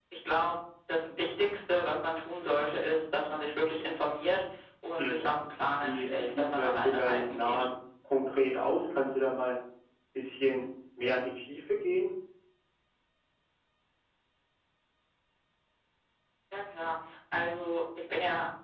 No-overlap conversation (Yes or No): No